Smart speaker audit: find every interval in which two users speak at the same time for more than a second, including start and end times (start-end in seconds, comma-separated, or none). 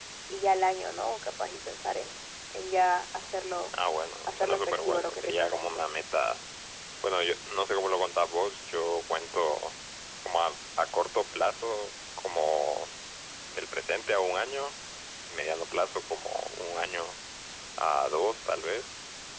4.3-5.8